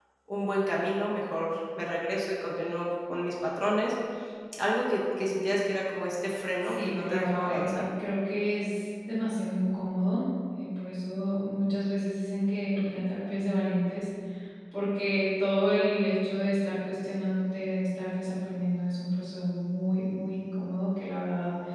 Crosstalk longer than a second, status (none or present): present